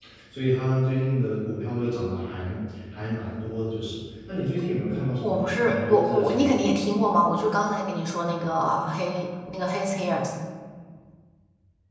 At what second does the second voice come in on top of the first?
5.2 s

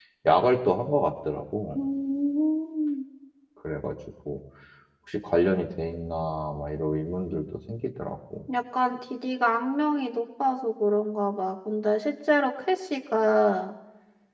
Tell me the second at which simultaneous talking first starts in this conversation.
none

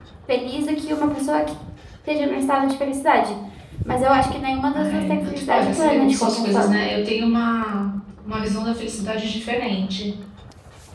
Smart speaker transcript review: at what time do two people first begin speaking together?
4.7 s

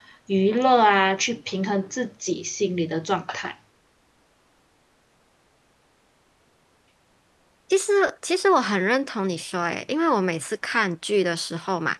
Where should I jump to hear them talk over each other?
none

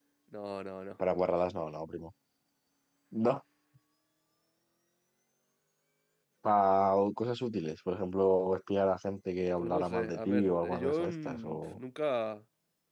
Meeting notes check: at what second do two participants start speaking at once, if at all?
9.6 s

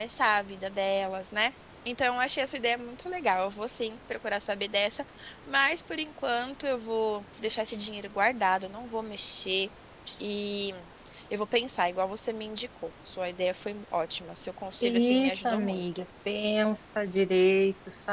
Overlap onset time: 14.8 s

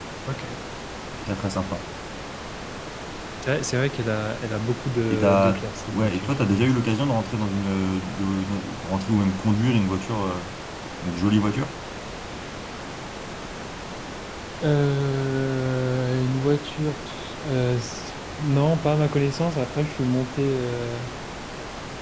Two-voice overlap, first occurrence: 5.1 s

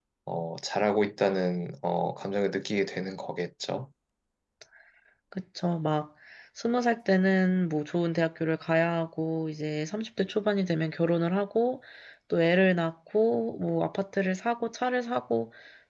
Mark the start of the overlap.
none

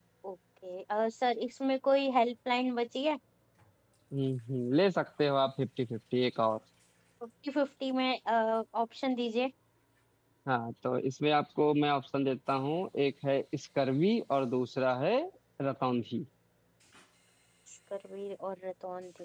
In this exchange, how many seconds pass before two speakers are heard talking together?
none

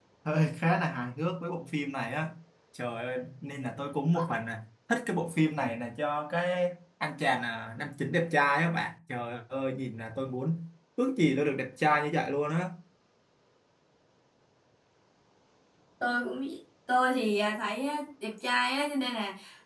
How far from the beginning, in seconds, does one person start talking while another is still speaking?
none

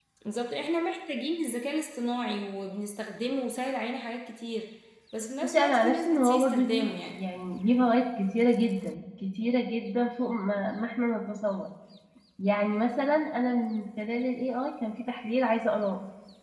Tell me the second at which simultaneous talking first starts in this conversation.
5.4 s

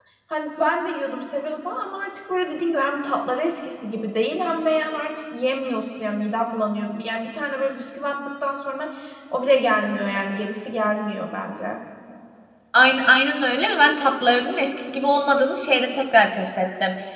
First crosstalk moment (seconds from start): none

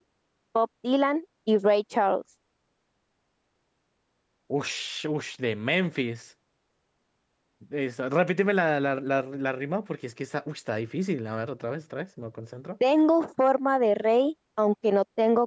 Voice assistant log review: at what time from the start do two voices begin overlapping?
none

